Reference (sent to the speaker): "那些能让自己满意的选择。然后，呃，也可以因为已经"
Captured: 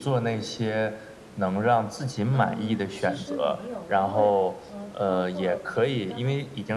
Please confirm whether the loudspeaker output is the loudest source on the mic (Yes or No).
Yes